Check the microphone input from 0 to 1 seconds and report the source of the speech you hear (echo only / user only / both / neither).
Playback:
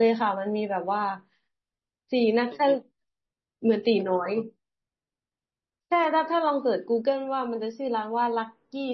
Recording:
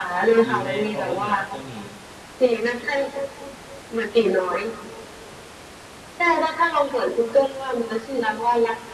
both